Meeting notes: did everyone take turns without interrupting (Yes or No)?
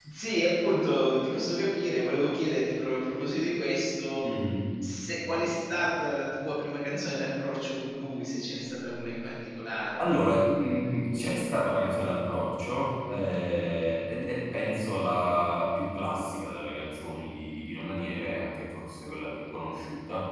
Yes